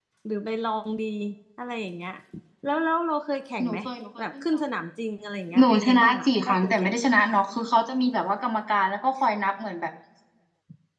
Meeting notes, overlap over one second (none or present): present